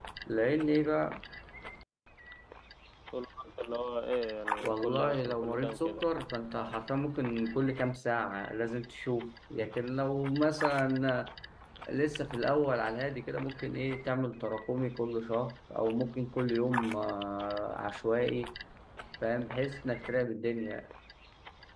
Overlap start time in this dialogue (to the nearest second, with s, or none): 5 s